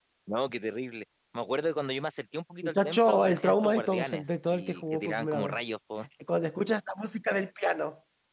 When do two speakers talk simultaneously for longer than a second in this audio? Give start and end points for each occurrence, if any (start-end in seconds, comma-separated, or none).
2.6-5.6